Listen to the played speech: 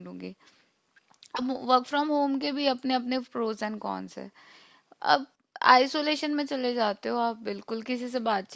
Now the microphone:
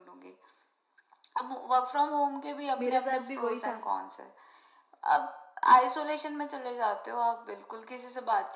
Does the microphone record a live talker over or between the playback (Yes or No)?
Yes